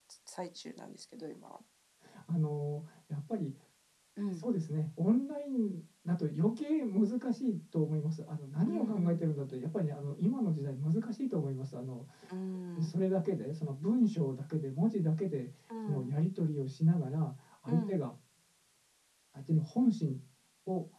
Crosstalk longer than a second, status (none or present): none